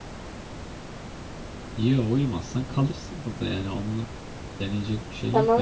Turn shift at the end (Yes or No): Yes